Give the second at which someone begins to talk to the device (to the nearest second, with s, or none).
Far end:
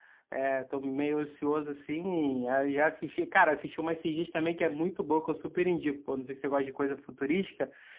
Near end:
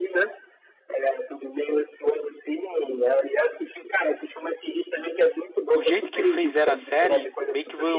6 s